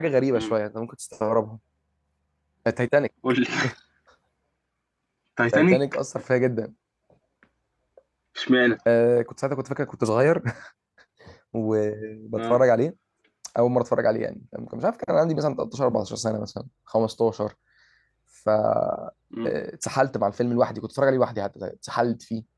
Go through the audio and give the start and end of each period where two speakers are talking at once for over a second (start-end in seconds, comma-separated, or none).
none